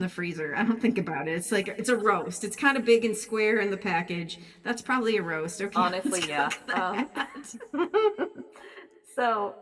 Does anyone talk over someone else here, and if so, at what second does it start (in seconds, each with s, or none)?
5.7 s